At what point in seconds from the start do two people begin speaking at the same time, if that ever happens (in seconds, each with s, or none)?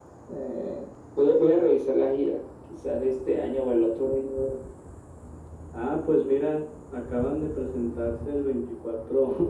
none